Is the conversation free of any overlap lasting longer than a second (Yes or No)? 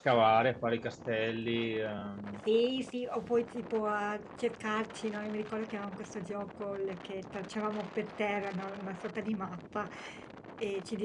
Yes